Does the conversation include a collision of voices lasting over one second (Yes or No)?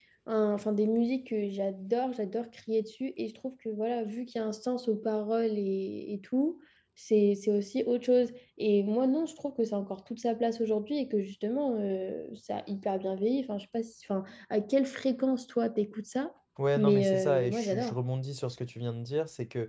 Yes